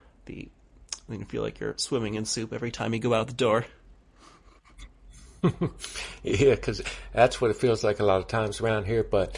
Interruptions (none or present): none